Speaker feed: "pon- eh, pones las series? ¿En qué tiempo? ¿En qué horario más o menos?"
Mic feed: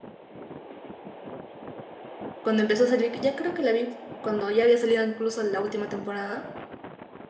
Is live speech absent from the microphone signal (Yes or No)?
No